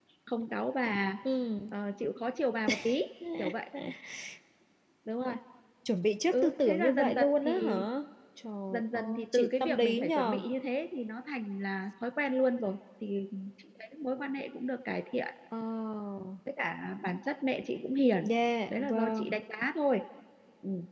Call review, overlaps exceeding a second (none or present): present